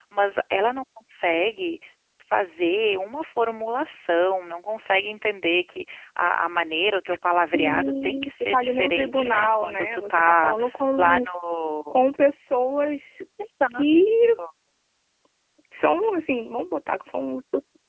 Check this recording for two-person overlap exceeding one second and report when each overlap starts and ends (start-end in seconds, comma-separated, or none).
7.5-10.6